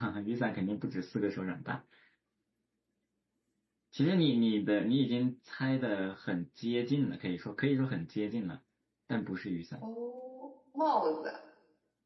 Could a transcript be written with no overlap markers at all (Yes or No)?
Yes